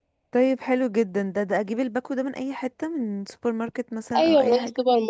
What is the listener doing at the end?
taking over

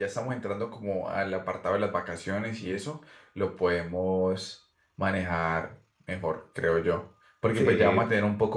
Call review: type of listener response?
listening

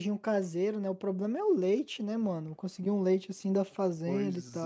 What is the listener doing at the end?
taking over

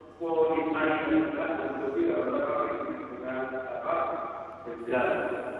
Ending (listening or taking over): listening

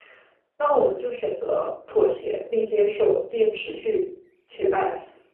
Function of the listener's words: taking over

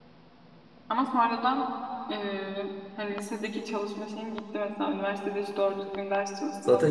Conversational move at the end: taking over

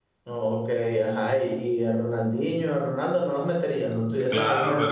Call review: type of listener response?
taking over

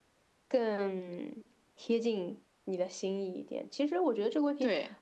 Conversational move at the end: listening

